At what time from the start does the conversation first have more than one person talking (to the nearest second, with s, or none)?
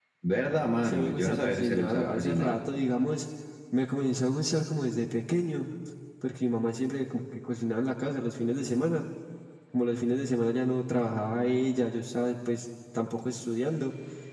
1 s